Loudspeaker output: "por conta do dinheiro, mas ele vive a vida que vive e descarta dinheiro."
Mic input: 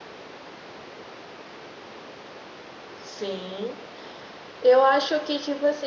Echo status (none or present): none